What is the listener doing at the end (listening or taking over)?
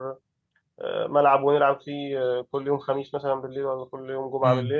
taking over